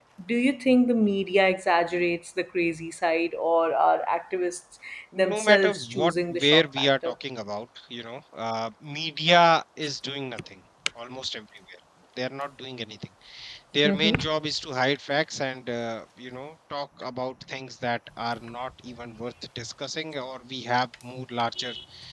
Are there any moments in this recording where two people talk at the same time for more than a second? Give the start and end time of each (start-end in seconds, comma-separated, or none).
5.2-7.1